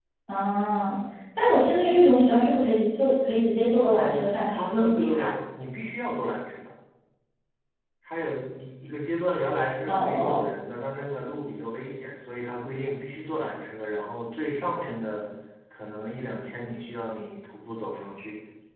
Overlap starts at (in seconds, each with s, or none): 3.8 s